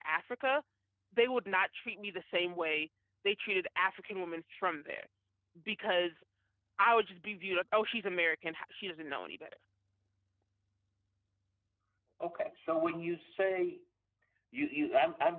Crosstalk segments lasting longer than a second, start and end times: none

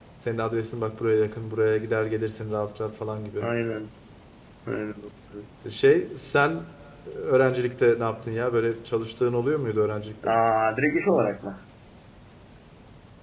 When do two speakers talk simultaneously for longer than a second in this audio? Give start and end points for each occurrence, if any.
none

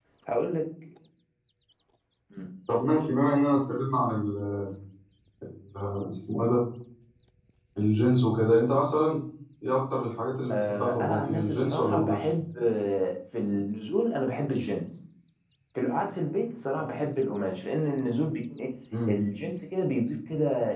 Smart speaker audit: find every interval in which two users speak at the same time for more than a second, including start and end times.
10.5-12.2

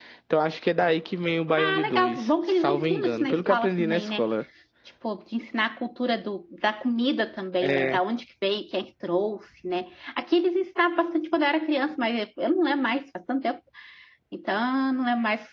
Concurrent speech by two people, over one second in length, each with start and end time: 1.6-4.2

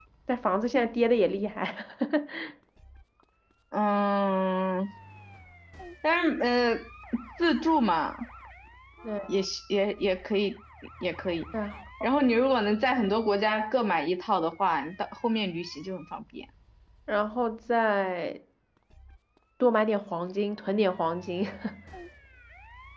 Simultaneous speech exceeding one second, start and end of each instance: none

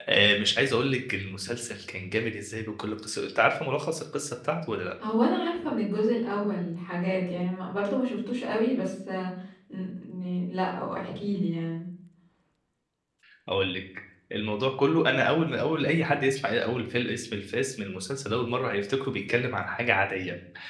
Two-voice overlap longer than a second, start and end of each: none

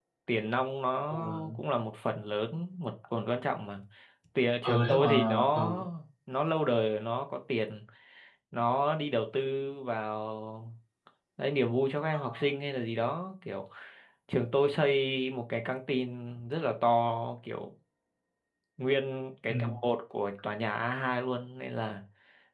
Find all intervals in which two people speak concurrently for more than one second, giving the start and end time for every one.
4.6-5.8

